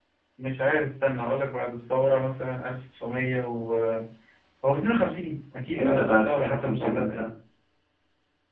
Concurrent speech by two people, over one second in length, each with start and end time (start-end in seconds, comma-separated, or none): 5.8-7.3